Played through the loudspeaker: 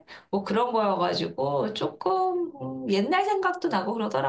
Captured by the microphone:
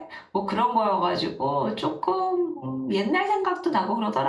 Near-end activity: none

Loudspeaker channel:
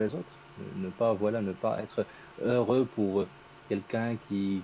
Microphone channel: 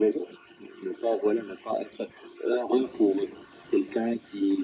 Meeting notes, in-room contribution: none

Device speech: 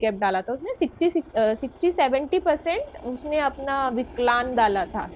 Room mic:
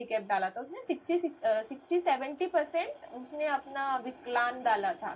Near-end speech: none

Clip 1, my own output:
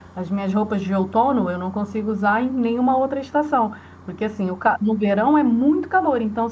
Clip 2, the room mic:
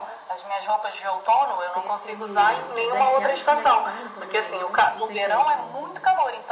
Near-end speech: present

